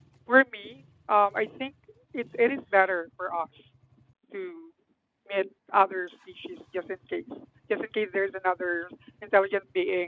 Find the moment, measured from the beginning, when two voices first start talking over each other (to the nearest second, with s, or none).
none